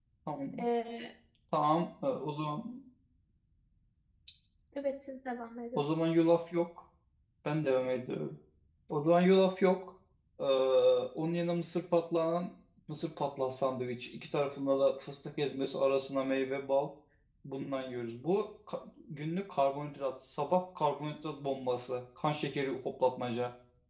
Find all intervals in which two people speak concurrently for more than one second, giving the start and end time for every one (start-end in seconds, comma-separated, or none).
none